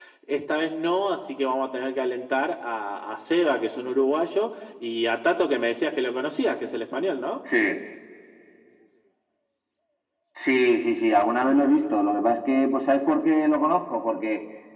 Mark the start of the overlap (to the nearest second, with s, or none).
none